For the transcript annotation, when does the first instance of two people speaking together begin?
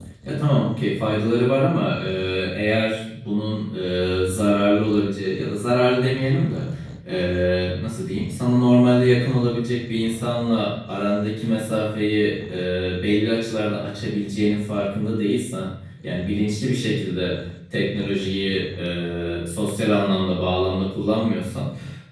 none

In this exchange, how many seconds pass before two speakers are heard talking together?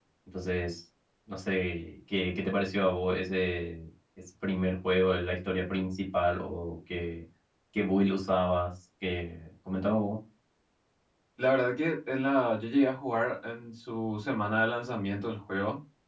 none

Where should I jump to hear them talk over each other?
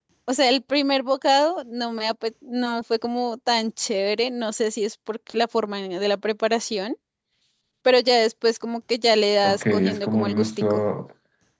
9.4 s

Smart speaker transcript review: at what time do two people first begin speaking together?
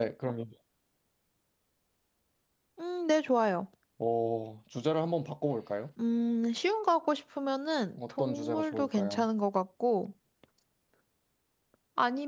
8.0 s

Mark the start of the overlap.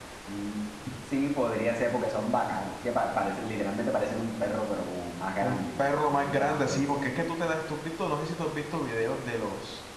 5.4 s

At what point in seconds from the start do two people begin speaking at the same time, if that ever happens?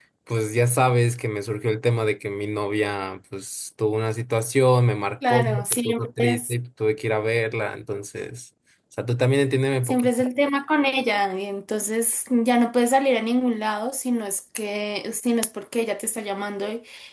5.3 s

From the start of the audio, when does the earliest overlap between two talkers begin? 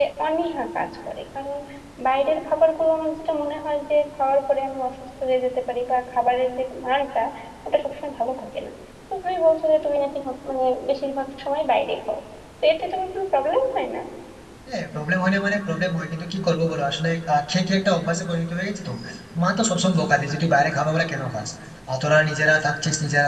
none

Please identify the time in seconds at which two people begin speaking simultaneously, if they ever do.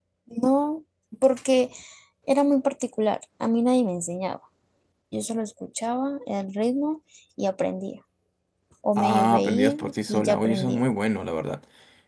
9.0 s

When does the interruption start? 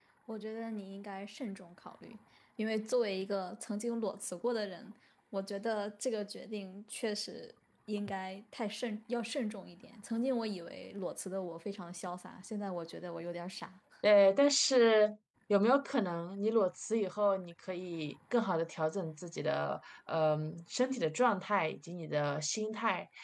none

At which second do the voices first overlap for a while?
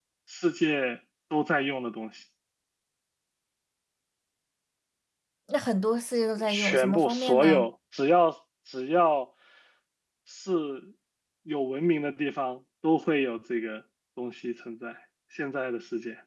6.5 s

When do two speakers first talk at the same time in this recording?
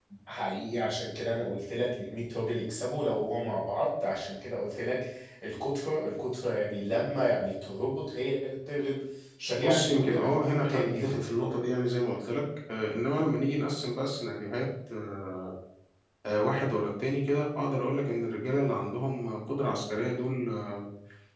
9.6 s

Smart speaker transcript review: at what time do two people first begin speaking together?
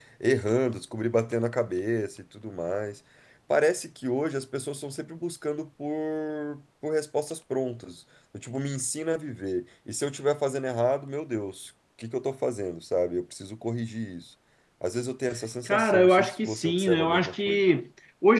15.7 s

